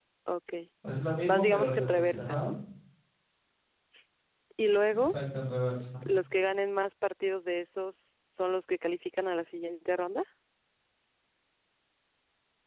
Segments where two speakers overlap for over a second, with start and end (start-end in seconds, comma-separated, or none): 1.3-2.5